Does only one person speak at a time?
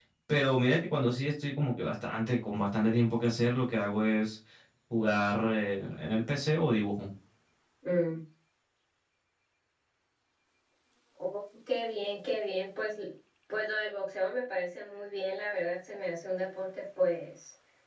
Yes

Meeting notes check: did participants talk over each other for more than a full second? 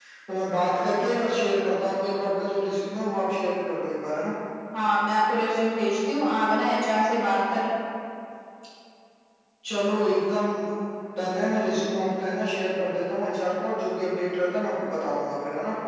No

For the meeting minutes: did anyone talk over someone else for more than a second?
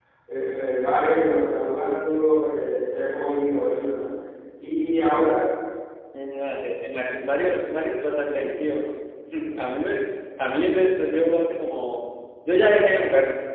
No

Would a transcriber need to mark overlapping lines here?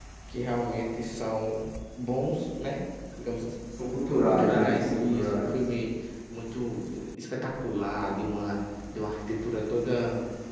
Yes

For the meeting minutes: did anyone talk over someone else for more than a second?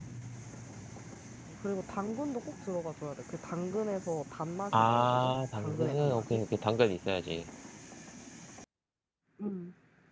Yes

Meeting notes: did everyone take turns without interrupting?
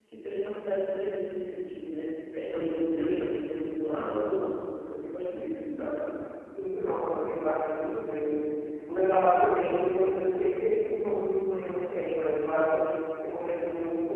Yes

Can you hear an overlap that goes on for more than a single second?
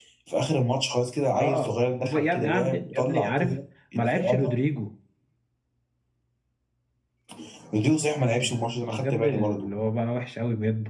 Yes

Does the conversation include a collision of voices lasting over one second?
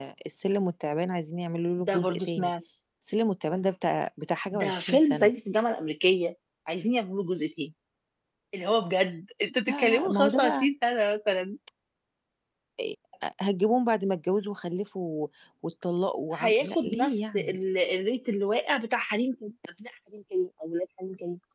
Yes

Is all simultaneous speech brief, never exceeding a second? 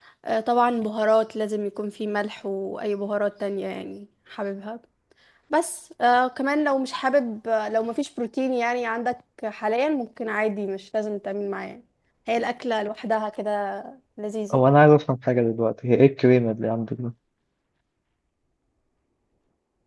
Yes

